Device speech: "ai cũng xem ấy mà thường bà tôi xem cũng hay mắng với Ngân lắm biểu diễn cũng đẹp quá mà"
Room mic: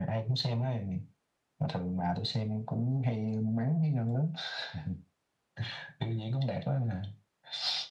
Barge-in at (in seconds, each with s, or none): none